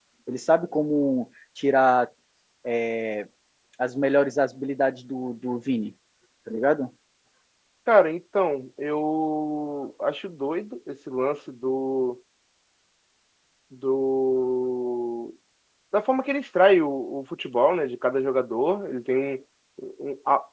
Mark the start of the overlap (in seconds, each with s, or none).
none